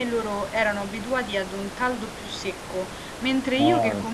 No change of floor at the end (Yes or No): Yes